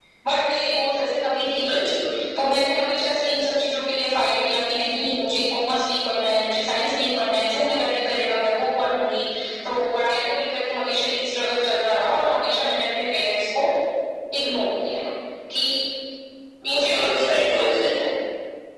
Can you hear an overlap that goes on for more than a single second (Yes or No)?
Yes